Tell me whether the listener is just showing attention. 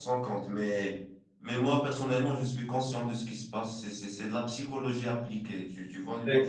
No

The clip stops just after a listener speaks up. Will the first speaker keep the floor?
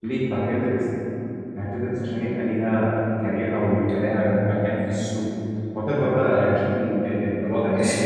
No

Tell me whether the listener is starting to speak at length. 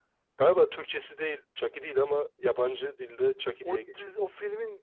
Yes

